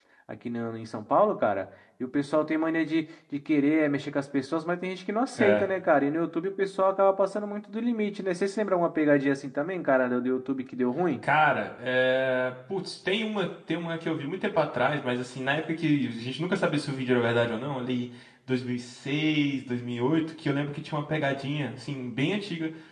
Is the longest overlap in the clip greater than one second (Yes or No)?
No